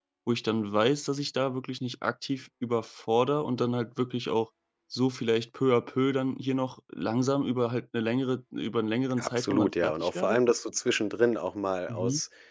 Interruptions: present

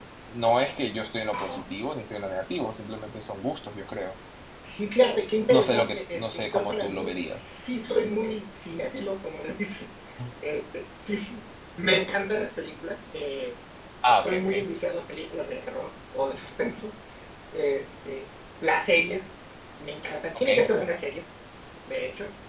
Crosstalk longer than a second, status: present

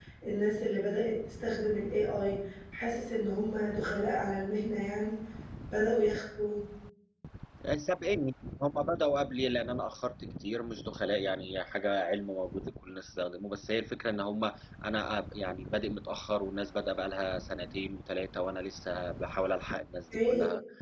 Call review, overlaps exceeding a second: none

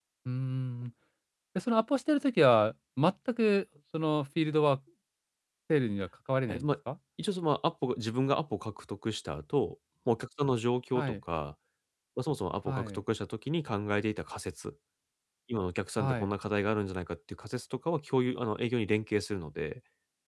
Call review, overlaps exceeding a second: none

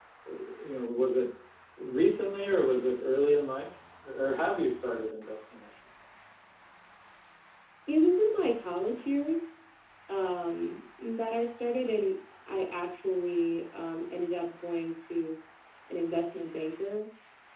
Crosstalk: none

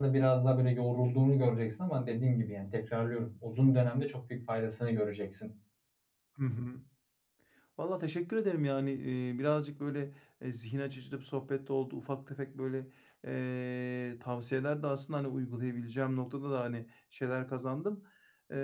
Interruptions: none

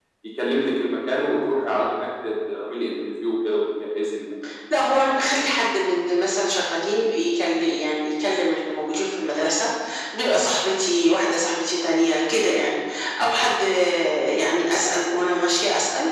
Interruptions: none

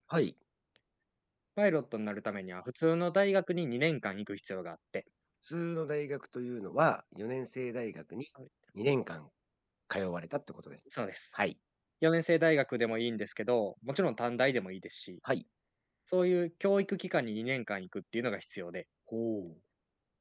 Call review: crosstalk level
none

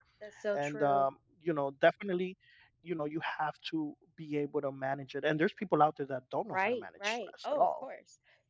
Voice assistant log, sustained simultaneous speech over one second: present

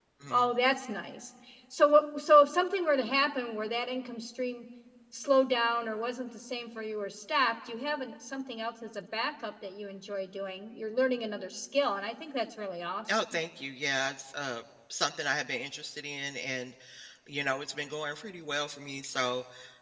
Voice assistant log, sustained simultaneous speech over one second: none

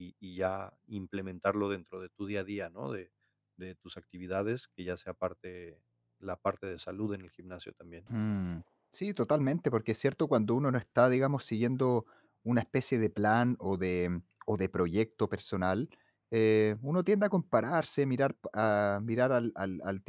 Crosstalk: none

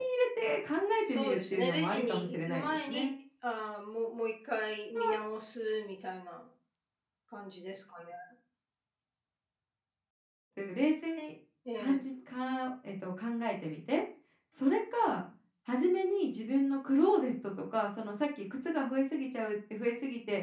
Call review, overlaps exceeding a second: present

